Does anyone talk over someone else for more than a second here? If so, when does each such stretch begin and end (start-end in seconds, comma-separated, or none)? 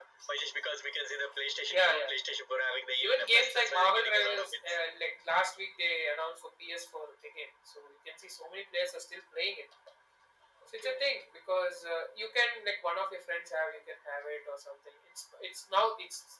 3.0-4.5